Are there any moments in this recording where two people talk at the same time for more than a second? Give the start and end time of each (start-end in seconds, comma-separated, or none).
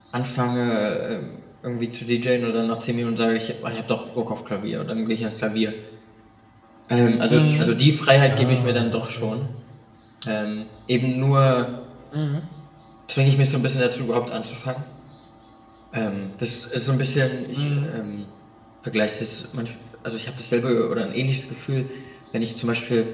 8.3-9.5